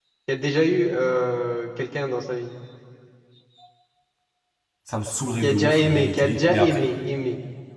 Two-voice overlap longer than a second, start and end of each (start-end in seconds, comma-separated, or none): 5.4-6.8